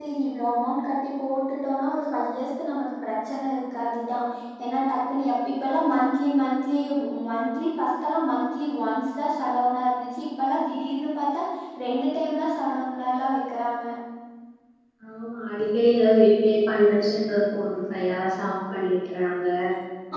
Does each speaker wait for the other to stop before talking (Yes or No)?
Yes